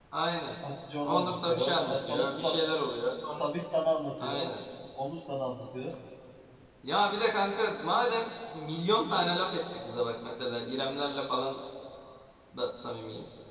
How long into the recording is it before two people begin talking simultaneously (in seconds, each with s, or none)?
1.0 s